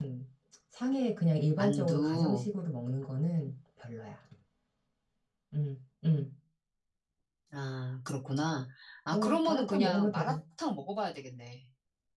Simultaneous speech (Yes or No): Yes